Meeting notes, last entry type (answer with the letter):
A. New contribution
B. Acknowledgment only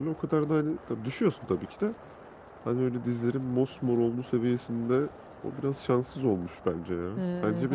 A